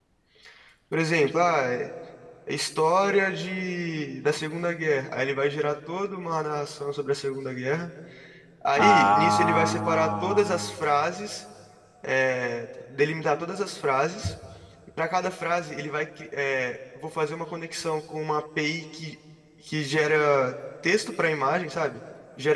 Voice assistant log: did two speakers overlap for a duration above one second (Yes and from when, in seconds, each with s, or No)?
Yes, from 8.8 s